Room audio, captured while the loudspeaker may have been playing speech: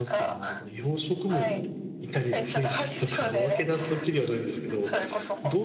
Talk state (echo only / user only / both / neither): both